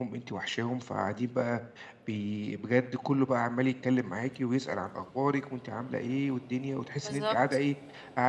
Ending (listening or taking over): listening